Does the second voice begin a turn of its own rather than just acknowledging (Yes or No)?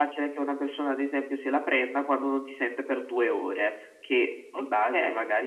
No